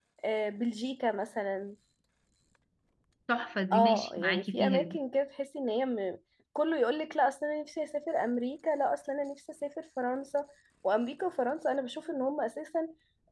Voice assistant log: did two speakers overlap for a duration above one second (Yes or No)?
Yes